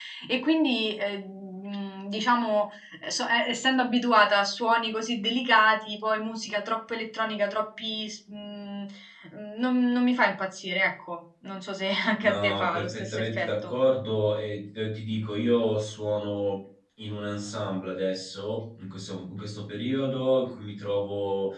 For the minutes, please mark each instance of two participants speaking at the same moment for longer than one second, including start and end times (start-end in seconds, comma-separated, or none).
12.2-13.7